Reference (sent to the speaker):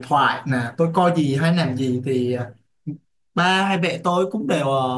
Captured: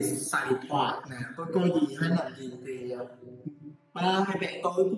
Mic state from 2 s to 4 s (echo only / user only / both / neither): echo only